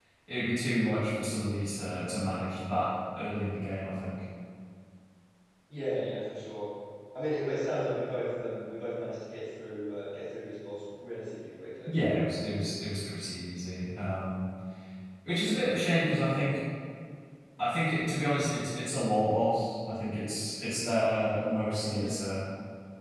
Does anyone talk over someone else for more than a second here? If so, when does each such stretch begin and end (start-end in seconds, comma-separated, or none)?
none